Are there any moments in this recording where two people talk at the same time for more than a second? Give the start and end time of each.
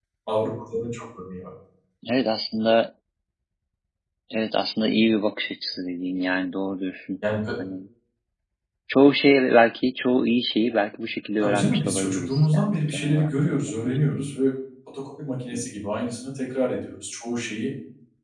11.4-14.0

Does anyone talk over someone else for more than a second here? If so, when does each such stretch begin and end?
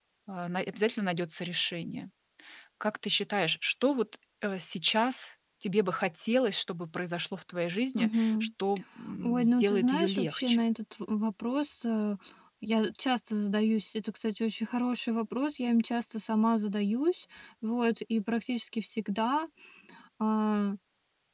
9.2-10.6

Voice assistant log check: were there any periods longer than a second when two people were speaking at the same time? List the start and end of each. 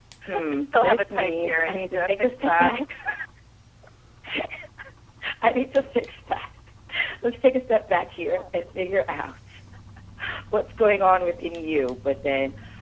0.5-2.8

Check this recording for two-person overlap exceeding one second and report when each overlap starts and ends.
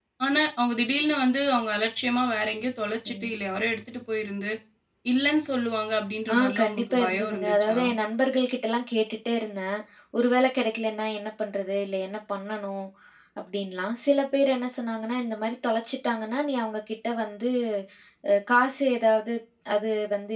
6.3-7.8

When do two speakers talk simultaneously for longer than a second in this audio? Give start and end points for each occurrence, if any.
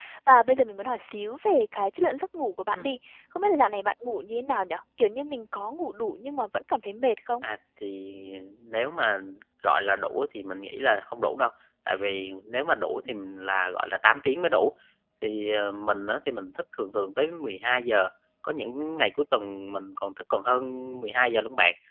none

